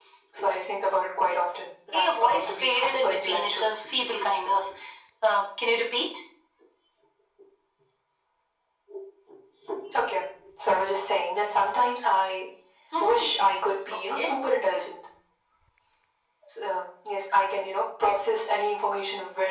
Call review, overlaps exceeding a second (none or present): present